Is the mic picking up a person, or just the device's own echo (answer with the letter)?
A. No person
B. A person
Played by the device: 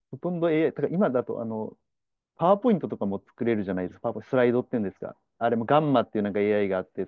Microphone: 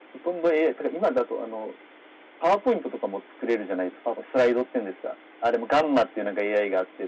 A